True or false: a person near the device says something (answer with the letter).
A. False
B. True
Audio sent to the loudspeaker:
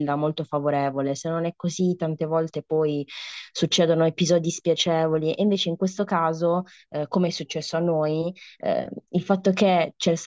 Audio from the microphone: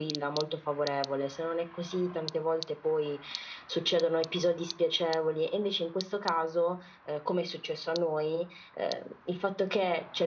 A